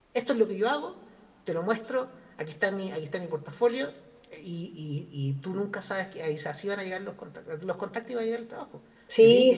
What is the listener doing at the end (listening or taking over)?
taking over